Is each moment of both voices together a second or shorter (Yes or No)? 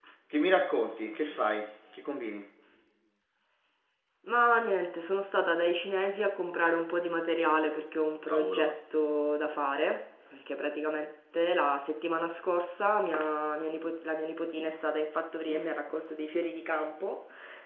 Yes